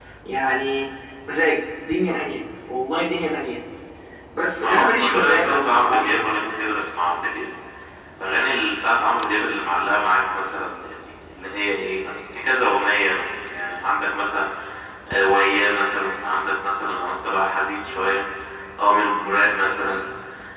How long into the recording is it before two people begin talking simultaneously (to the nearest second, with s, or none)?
5 s